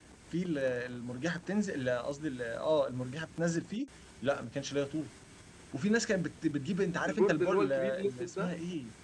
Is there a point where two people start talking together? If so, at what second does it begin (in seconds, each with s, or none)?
7.0 s